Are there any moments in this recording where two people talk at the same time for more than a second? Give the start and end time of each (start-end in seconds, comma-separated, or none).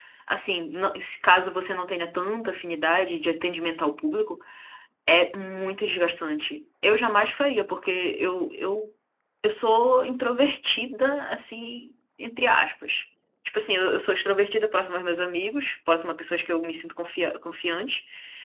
none